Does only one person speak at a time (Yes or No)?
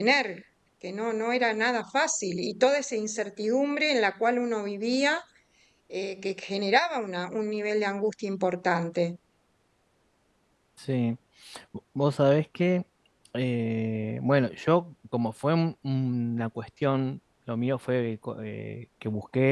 Yes